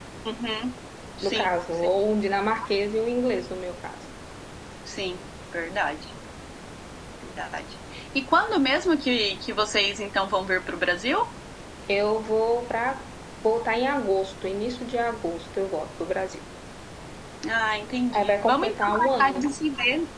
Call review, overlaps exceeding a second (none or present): present